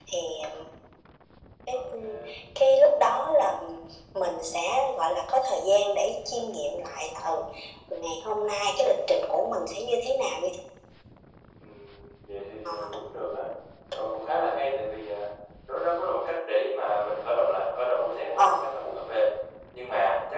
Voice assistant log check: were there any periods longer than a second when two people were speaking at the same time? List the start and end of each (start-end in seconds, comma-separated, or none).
none